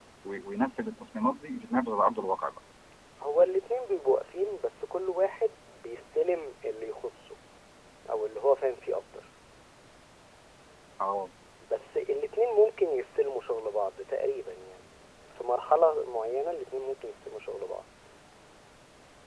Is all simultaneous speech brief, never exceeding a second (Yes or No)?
Yes